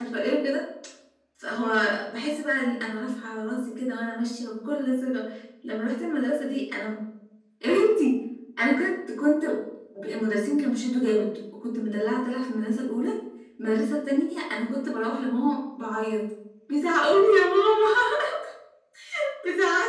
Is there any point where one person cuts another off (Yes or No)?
No